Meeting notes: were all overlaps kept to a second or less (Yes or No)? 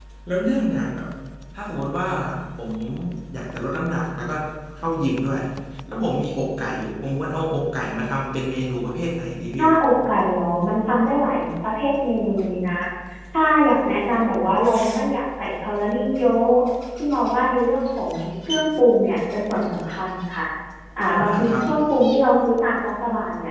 Yes